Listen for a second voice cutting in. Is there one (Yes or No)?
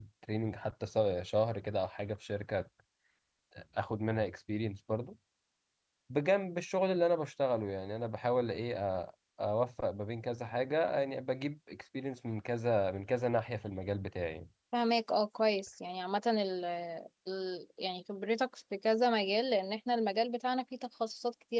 No